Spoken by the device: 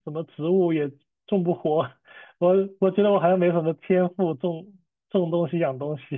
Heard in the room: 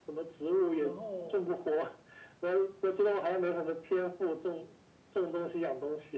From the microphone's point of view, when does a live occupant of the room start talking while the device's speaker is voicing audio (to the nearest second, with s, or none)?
1 s